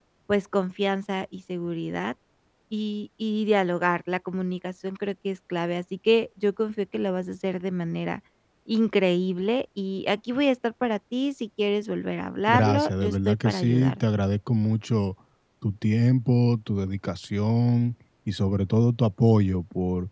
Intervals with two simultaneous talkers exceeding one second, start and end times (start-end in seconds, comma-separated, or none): 12.5-14.0